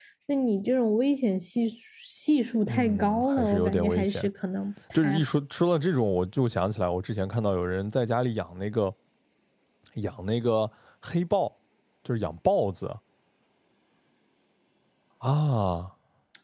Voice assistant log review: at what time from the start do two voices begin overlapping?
3 s

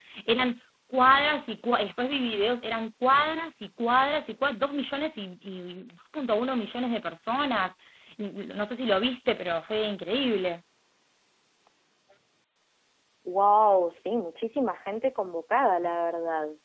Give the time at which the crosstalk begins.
none

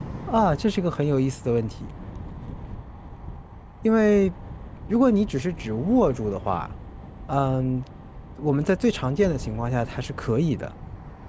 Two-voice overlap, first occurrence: none

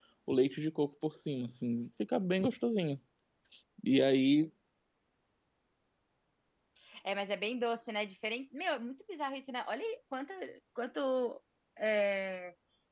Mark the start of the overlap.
none

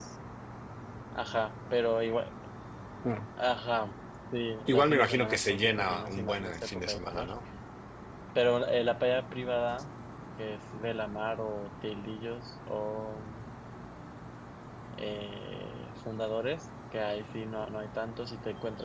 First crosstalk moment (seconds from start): 5 s

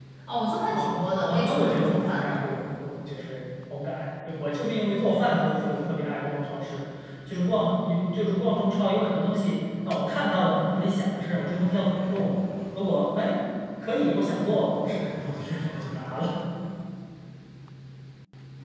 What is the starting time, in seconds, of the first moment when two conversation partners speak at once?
1 s

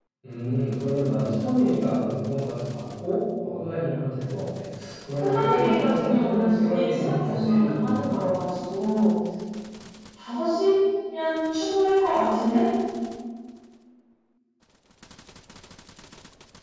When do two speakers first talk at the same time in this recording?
5 s

